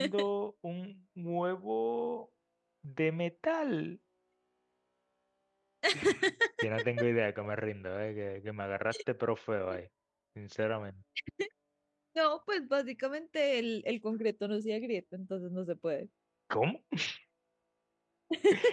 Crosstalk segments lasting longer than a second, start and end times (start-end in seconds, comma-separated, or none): none